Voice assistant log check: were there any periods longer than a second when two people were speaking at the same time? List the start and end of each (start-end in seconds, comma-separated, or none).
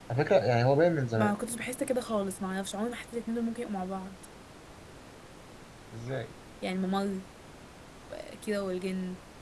none